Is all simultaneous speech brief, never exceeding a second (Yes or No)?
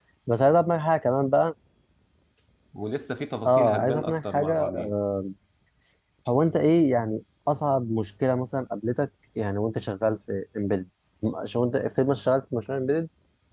No